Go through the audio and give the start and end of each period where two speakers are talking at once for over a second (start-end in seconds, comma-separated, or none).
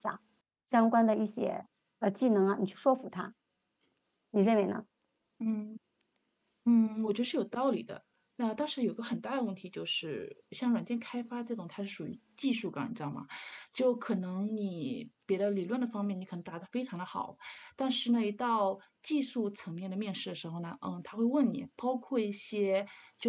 none